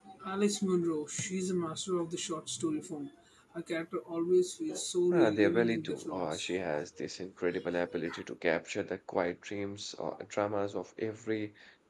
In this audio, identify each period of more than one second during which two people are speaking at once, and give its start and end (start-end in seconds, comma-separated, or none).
5.1-6.5